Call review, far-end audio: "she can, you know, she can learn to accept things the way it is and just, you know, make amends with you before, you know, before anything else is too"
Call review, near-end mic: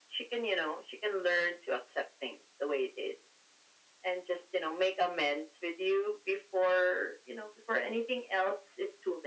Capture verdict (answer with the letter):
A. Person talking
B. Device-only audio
B